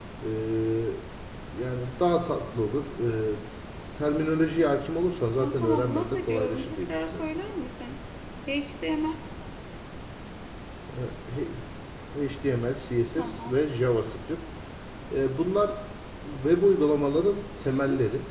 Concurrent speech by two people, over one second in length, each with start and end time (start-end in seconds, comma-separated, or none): 5.4-7.2